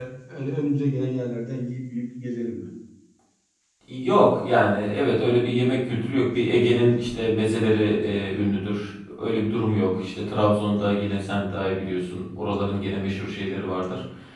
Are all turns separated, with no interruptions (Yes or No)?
Yes